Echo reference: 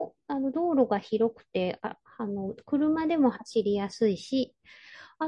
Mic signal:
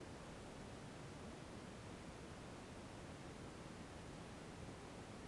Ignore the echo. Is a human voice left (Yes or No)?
No